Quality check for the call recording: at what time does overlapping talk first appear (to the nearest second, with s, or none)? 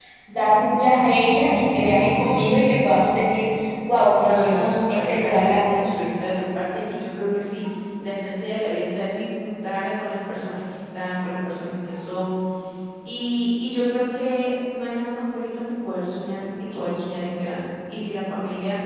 4 s